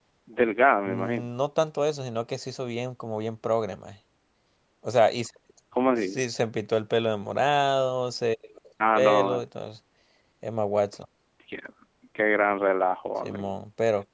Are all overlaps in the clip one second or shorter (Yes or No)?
Yes